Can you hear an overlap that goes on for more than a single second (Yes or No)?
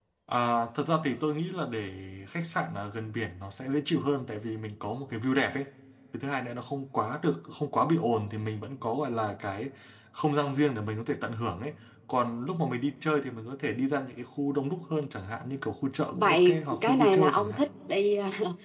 Yes